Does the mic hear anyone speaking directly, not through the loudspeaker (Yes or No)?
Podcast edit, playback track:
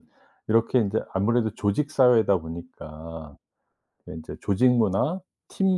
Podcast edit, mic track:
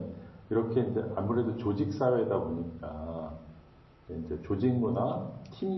No